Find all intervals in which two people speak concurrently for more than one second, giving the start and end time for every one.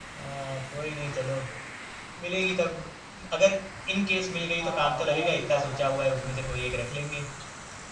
4.6-6.5

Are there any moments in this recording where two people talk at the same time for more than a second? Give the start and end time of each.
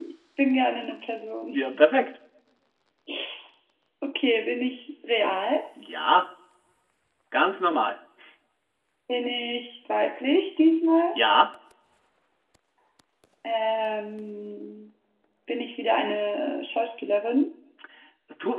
none

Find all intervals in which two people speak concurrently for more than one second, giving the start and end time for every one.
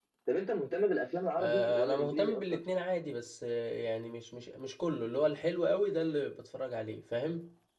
1.4-2.6

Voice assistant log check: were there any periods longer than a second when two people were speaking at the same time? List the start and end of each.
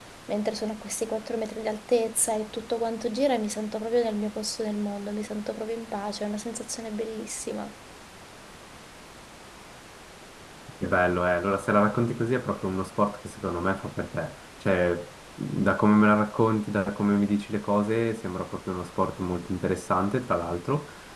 none

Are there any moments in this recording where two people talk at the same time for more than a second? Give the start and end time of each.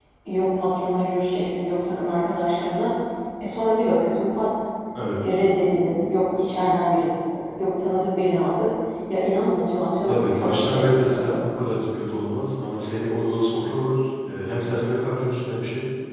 10.0-11.4

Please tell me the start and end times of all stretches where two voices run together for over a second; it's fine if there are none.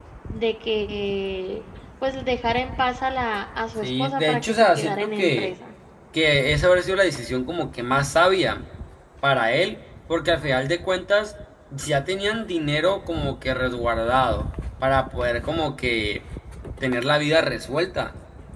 3.8-5.5

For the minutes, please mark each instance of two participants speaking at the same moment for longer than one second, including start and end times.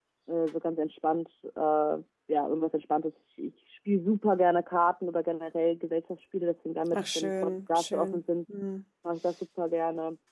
6.9-8.2

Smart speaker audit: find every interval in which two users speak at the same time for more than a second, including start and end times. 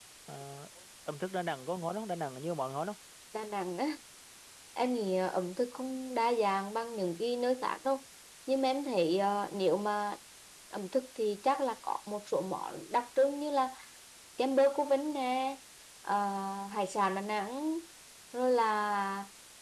none

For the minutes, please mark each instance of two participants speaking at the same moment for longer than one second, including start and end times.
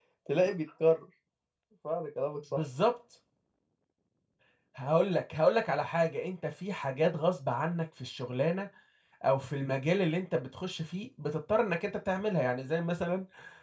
none

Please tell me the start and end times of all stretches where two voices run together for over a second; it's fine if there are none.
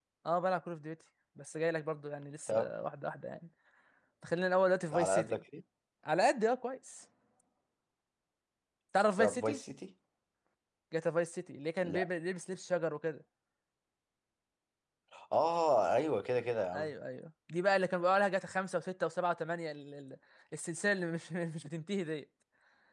none

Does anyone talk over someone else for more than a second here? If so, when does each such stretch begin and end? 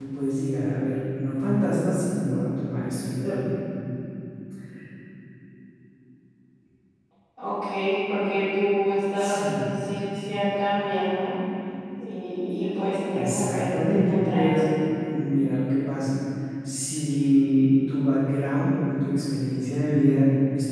13.1-14.6

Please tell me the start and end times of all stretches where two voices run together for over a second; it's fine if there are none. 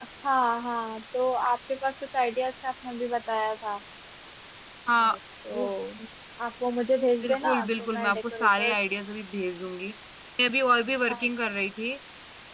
7.2-8.8

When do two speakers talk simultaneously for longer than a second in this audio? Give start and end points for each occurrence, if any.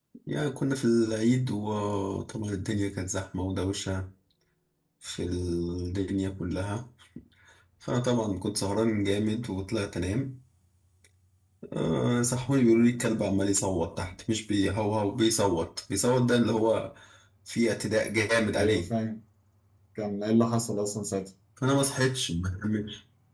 none

